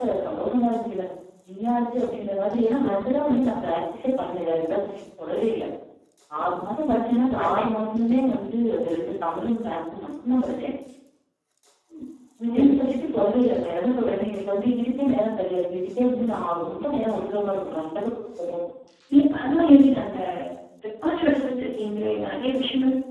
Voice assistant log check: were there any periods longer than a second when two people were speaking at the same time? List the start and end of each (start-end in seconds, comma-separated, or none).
none